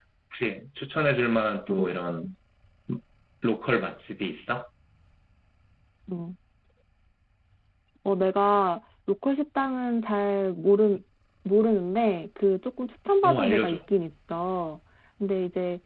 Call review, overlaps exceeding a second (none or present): none